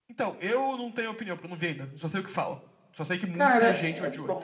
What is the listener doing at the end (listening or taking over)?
taking over